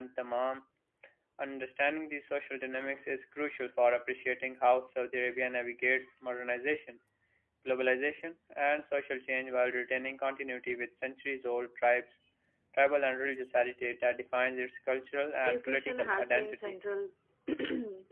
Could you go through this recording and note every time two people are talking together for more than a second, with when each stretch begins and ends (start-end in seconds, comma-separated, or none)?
15.4-16.8